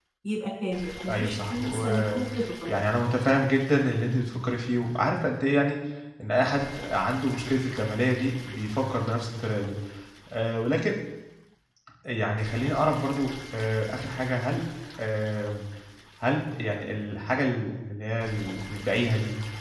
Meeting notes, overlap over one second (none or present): present